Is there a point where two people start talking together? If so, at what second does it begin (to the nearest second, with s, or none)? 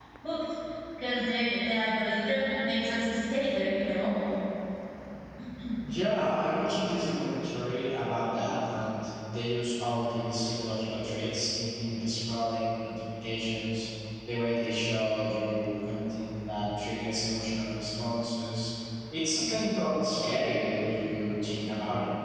none